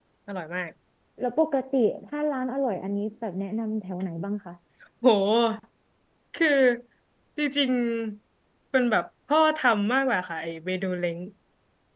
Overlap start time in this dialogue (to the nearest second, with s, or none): none